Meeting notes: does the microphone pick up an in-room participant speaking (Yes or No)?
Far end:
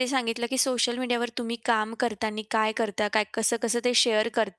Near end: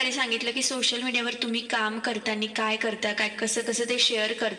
No